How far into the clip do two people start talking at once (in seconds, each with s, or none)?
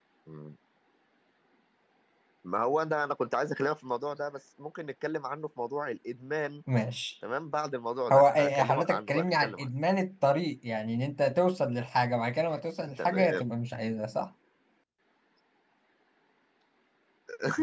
8.1 s